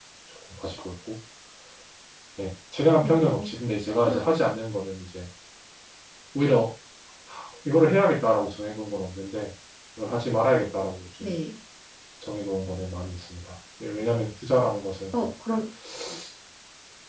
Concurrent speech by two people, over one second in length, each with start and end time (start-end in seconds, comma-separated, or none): none